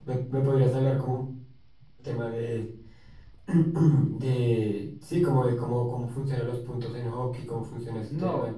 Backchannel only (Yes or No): No